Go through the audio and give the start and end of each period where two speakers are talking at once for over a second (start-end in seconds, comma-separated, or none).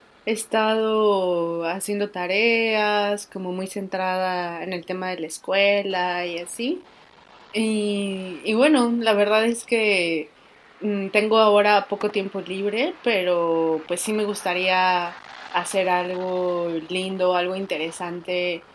none